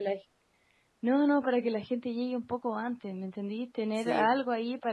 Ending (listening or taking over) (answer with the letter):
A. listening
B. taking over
A